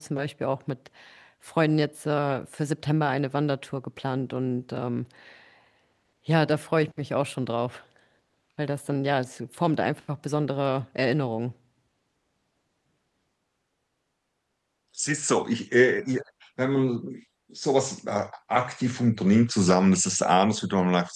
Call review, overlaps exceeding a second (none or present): none